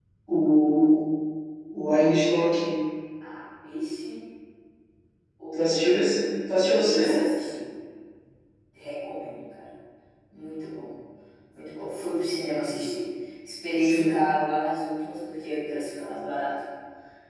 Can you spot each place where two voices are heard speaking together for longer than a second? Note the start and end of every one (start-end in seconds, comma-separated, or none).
none